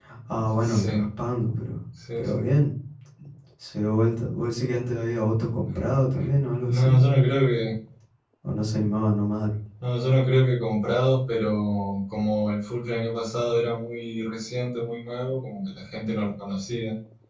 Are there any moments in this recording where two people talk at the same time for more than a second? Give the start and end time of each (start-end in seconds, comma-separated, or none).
none